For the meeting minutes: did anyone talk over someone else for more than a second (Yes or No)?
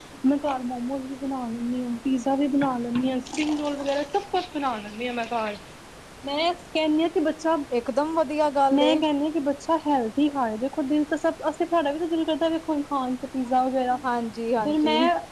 No